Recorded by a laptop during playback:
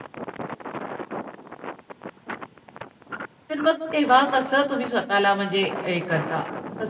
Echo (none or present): none